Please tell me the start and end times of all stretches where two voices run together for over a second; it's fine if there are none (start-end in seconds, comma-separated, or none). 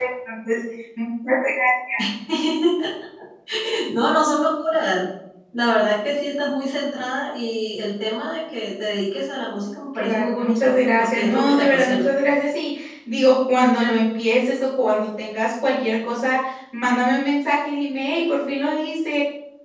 9.9-12.1